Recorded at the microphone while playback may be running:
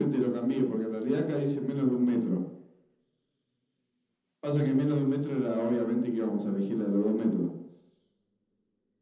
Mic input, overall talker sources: echo only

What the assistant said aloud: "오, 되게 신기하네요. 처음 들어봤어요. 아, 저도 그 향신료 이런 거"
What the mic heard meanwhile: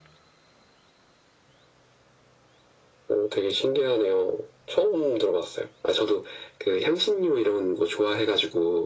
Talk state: echo only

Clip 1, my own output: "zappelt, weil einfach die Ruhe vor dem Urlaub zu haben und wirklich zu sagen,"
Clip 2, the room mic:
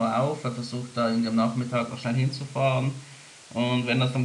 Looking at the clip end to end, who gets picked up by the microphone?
user only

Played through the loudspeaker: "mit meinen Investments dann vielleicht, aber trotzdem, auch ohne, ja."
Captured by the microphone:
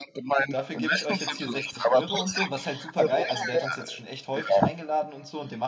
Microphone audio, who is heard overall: both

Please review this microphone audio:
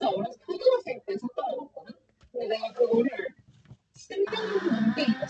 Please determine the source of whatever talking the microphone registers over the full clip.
both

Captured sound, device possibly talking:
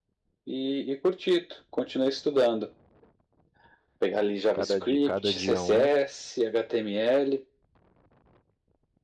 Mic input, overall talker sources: both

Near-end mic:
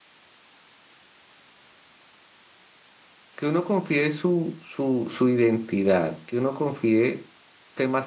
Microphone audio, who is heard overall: user only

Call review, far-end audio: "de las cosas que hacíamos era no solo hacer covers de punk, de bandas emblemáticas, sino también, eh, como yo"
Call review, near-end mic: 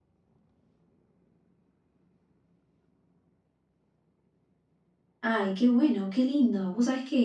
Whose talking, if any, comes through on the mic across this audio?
user only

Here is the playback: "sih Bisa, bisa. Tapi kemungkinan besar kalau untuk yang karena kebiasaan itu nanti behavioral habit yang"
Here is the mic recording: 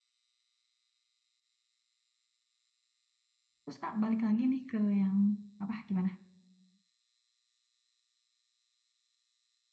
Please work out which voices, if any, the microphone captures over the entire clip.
user only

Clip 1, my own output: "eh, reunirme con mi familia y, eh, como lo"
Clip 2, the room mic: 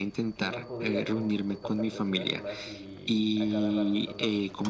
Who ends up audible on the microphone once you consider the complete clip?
both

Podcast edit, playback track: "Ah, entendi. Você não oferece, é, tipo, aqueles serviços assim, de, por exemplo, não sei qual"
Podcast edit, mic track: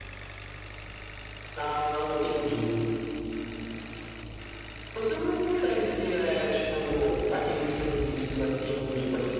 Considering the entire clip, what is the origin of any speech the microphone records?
echo only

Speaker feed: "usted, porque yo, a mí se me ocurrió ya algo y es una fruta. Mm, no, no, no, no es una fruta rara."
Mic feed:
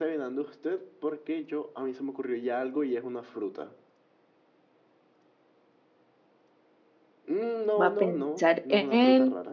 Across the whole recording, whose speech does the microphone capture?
both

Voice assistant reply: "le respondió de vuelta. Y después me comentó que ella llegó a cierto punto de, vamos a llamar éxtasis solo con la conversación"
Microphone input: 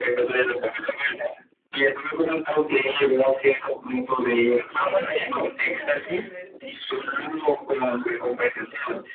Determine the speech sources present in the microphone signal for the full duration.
both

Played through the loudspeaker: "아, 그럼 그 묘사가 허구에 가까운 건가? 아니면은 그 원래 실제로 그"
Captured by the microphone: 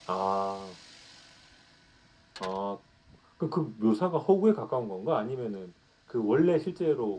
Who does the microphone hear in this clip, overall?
echo only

